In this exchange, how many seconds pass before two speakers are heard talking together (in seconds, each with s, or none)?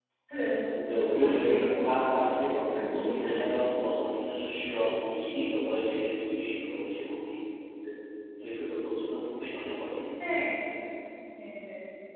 0.9 s